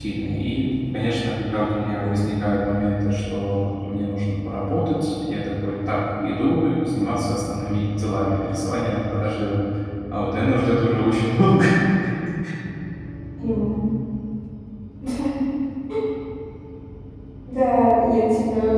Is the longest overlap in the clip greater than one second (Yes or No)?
No